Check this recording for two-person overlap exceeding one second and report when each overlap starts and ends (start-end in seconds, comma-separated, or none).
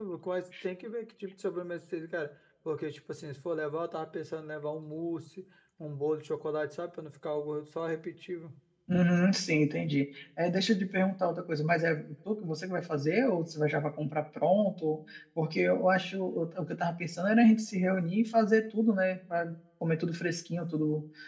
none